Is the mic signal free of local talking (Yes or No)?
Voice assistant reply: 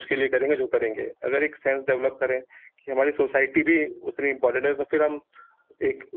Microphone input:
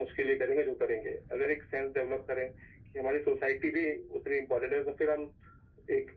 Yes